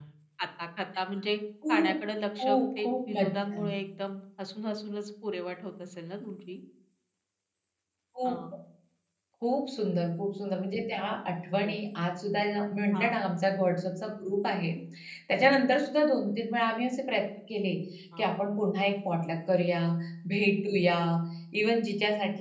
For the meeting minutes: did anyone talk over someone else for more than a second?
Yes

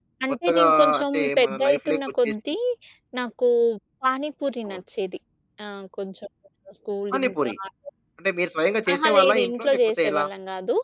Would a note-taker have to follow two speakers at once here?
Yes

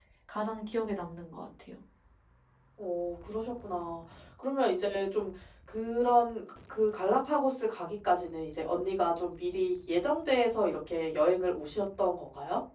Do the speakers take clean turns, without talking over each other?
Yes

